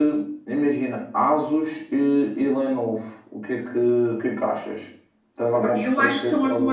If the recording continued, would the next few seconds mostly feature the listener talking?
Yes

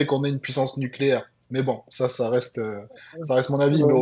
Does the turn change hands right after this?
No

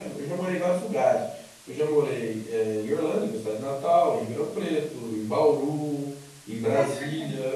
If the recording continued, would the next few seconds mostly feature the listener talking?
No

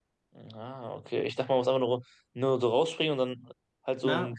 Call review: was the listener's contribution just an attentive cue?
No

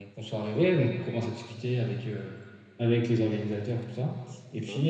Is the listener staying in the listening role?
Yes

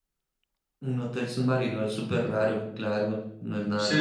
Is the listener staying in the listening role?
No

